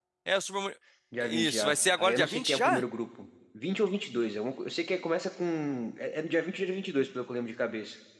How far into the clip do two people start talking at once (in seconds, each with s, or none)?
1.2 s